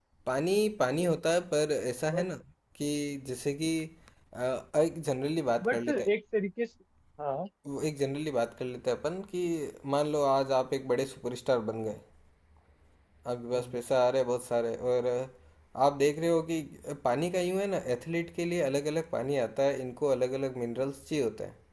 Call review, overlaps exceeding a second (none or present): none